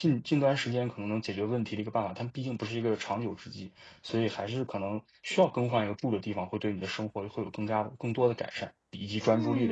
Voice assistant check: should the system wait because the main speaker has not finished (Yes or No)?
No